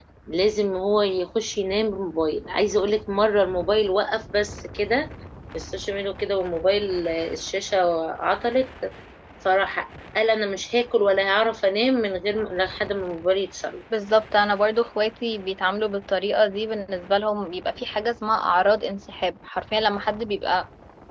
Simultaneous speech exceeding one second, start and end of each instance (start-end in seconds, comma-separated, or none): none